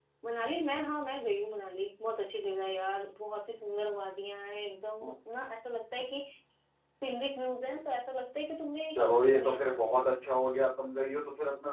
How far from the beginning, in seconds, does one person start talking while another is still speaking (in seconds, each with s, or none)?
8.9 s